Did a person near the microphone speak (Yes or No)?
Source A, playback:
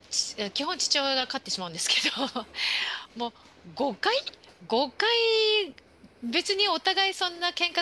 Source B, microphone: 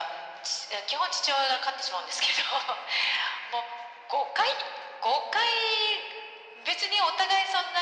No